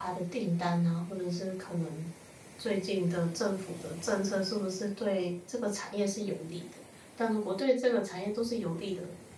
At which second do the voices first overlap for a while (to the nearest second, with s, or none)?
none